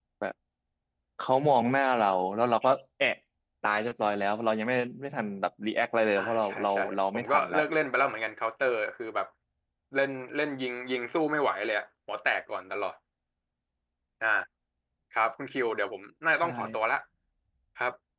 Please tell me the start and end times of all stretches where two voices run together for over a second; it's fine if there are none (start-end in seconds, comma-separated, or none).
6.2-7.6